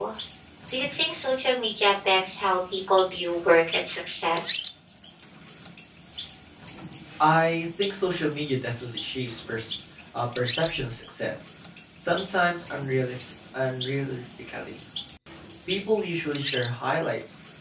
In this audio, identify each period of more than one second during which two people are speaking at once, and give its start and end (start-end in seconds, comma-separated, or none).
none